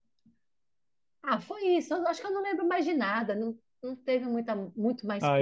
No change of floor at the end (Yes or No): No